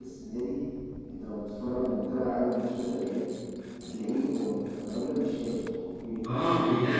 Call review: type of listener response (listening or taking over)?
taking over